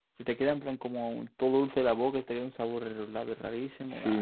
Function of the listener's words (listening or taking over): taking over